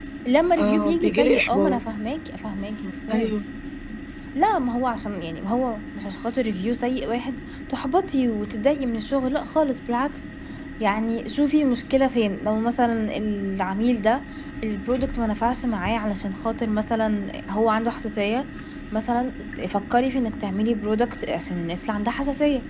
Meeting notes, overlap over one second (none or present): present